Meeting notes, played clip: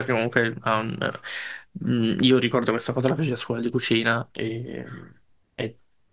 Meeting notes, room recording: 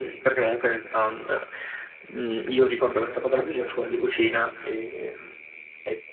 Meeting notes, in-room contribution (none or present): none